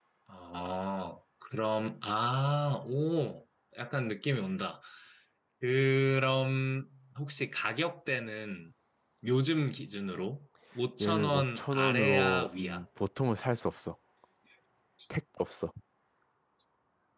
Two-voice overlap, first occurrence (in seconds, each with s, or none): 11.0 s